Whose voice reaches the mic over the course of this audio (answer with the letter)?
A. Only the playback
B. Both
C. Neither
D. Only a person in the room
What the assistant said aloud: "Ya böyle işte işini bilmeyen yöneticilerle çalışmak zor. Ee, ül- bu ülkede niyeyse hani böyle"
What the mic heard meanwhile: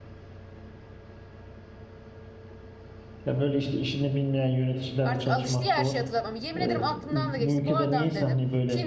B